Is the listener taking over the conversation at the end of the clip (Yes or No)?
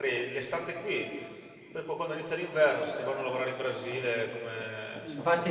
Yes